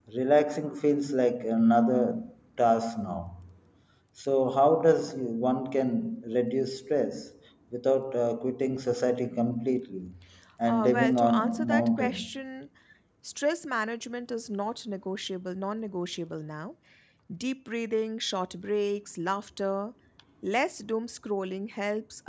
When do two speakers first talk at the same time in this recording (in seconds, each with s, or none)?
10.6 s